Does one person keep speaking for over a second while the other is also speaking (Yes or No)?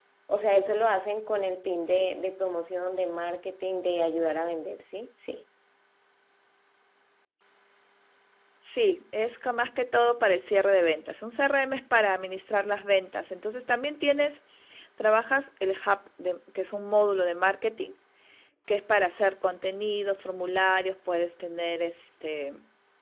No